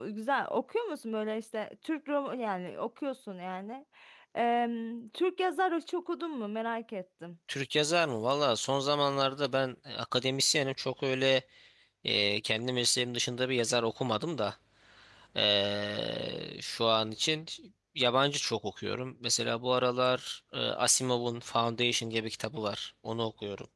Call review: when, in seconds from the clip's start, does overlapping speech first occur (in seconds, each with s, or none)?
none